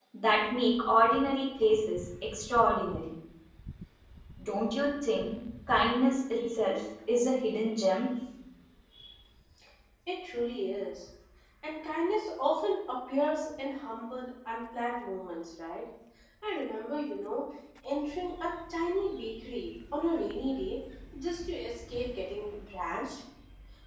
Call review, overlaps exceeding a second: none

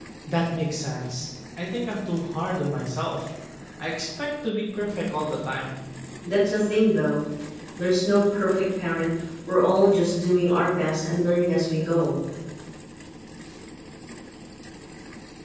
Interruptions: none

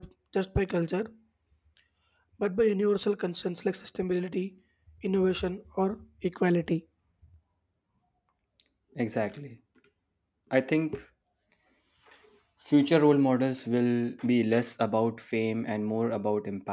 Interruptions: none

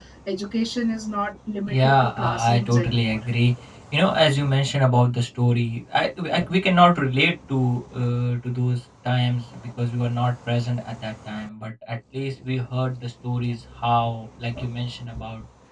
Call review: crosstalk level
present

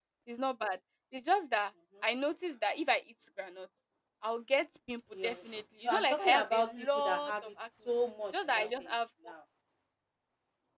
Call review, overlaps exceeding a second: present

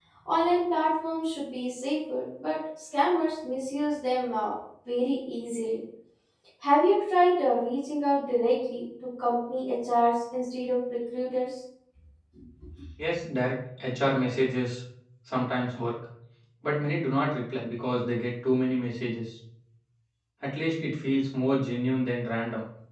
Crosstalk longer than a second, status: none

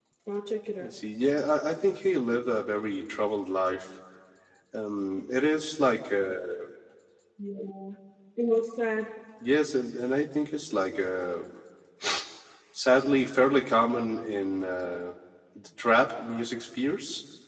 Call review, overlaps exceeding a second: none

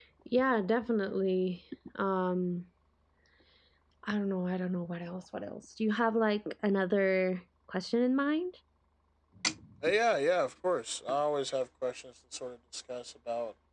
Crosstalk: none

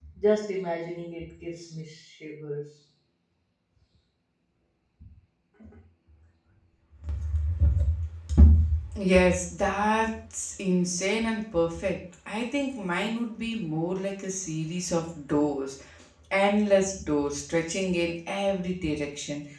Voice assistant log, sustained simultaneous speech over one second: none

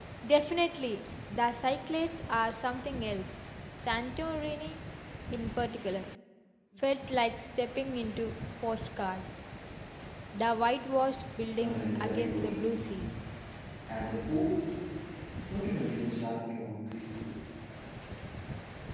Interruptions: present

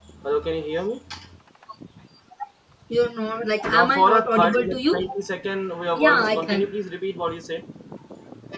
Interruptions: present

